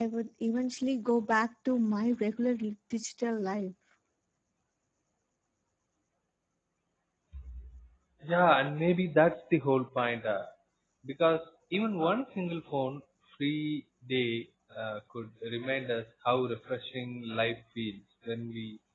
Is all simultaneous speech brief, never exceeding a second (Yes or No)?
Yes